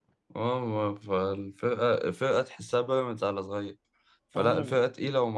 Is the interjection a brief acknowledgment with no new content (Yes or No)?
Yes